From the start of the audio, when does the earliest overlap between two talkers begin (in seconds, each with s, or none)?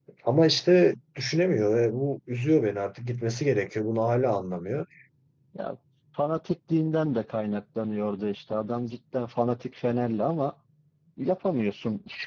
none